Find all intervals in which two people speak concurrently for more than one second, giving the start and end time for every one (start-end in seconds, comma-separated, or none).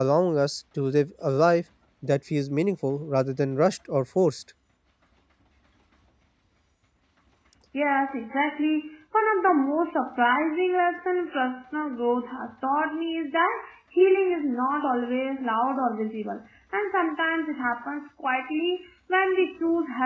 none